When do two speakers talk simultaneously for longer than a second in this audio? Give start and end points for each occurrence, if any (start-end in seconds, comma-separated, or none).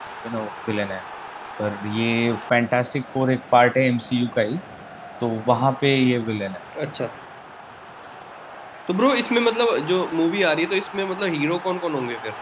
none